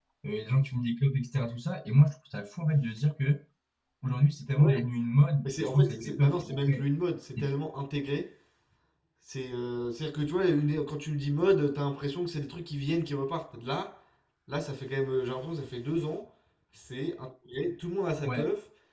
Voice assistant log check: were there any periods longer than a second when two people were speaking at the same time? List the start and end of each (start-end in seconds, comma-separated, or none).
5.4-6.8